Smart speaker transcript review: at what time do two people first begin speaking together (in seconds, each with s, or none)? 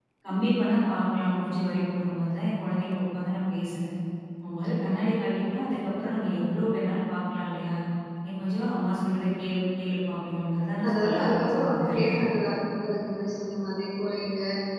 10.8 s